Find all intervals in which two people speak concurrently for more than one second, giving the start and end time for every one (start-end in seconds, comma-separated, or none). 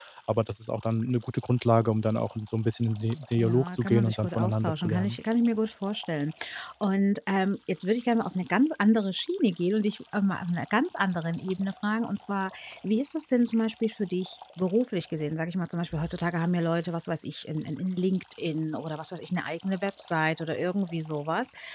3.4-5.2